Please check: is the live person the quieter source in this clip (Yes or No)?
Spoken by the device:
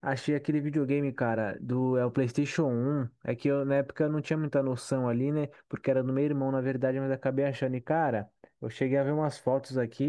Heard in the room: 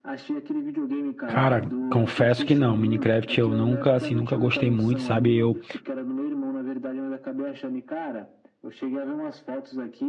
No